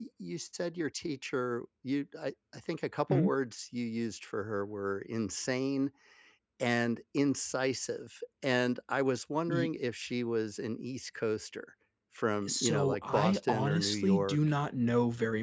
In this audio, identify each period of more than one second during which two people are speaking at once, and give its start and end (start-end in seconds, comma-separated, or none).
12.5-14.4